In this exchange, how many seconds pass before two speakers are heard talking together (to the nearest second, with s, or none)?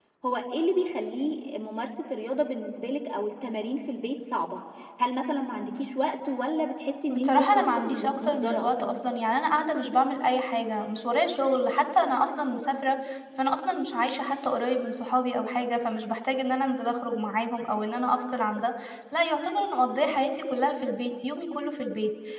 7 s